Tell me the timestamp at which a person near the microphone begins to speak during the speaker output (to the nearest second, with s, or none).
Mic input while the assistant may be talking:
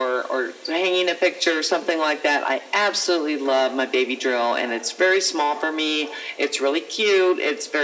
none